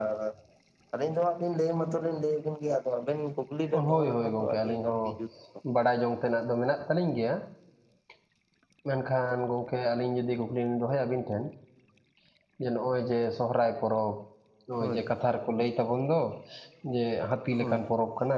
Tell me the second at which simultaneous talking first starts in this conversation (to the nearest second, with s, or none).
4 s